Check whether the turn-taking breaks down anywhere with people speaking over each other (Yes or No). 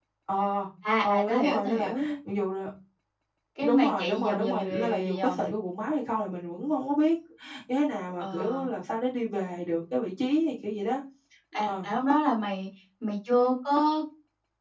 Yes